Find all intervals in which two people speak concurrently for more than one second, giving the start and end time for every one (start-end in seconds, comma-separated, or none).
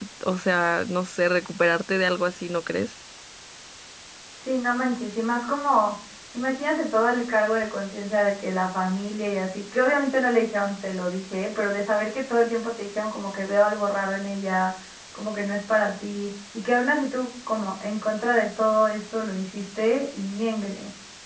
none